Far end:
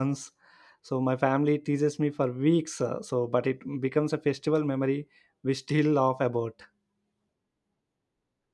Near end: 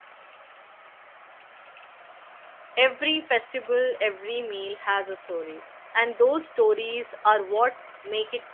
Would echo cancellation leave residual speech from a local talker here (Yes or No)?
Yes